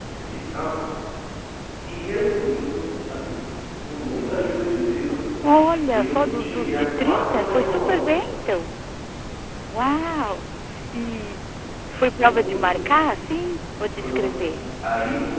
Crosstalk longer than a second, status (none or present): present